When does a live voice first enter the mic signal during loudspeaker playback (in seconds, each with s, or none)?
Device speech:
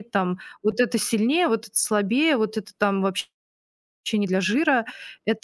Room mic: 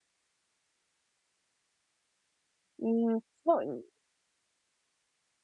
2.8 s